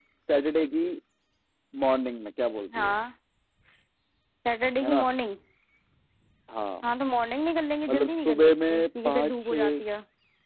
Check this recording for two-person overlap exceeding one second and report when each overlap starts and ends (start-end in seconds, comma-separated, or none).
7.9-9.8